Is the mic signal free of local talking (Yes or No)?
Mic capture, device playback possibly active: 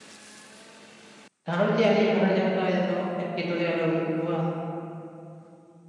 No